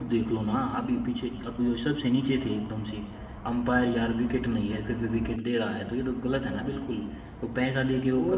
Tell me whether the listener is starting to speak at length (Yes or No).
Yes